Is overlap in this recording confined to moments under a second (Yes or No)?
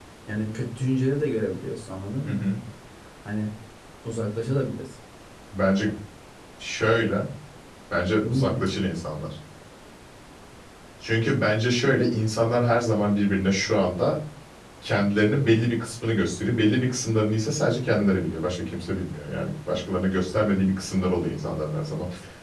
Yes